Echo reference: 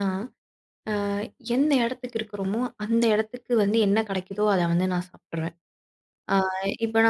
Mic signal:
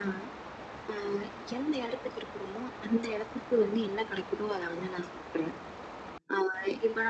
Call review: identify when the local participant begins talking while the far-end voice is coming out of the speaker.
none

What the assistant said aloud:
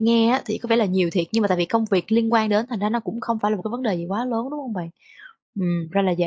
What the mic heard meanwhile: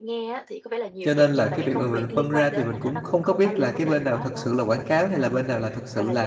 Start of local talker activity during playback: 1.0 s

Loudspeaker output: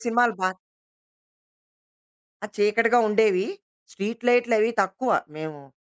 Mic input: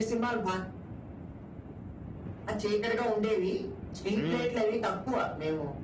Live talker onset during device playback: 4.2 s

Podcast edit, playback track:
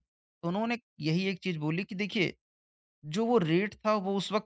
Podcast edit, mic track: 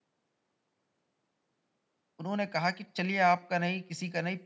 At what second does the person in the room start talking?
2.2 s

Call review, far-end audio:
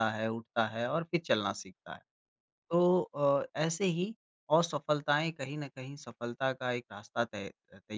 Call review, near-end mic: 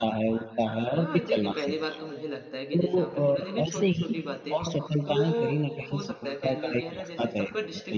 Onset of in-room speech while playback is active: 0.9 s

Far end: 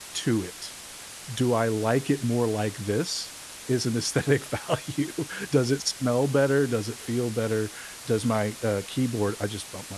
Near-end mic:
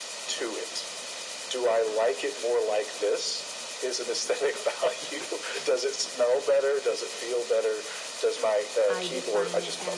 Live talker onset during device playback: 8.9 s

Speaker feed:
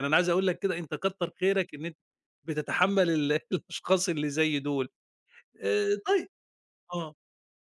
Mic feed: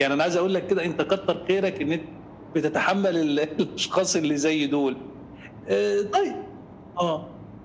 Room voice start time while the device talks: none

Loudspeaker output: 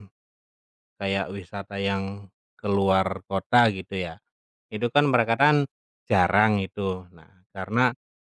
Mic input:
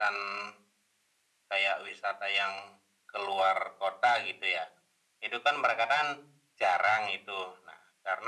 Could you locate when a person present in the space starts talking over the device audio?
none

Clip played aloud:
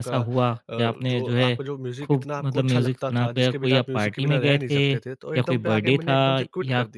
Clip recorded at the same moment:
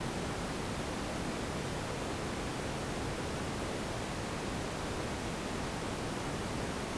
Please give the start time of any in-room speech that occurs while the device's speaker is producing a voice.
none

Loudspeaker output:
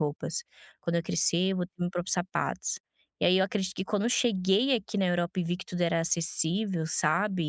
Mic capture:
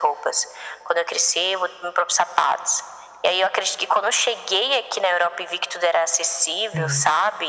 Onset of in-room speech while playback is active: 6.5 s

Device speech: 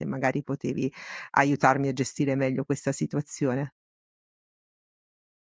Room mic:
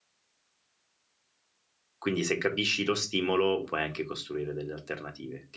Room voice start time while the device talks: 2.0 s

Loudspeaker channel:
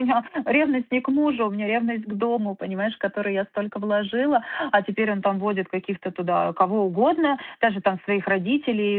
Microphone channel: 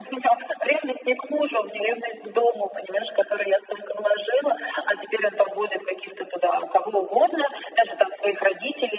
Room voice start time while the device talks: none

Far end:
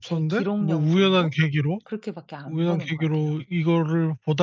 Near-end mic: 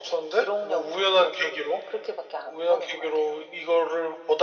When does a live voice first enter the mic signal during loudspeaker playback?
none

